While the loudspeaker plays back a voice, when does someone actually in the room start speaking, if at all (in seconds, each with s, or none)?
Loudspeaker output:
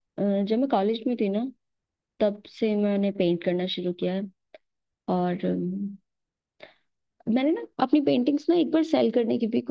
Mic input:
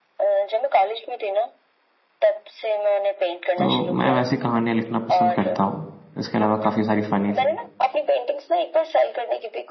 3.6 s